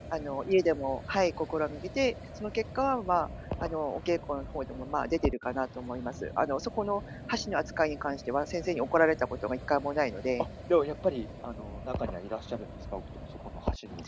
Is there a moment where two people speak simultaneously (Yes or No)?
No